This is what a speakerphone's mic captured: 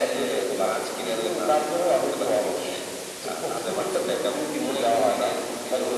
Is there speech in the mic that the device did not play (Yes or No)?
No